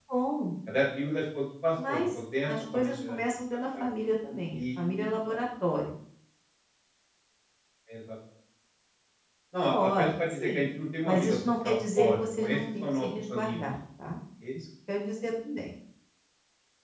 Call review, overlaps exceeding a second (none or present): present